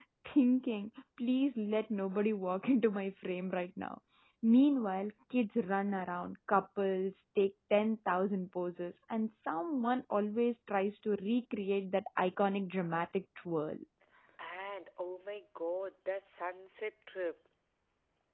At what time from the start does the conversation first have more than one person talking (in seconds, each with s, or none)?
none